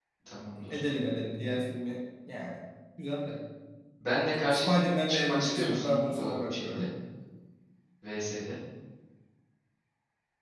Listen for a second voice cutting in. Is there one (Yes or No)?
Yes